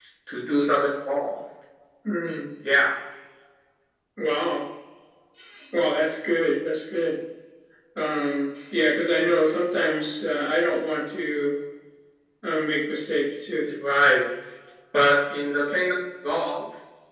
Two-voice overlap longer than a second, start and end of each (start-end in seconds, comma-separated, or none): none